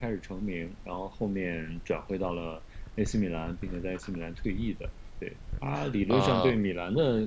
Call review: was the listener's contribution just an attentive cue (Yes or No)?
Yes